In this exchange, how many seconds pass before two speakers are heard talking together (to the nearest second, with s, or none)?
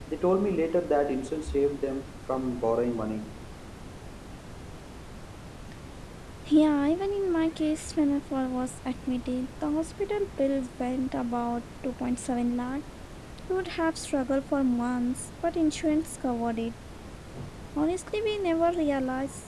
none